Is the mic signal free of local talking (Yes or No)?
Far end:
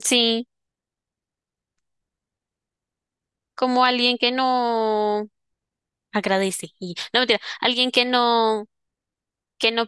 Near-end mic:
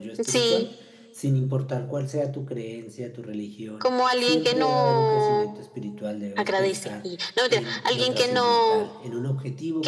No